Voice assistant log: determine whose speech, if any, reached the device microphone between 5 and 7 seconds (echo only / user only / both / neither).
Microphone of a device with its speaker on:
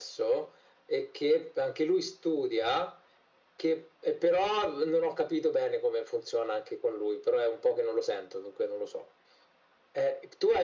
echo only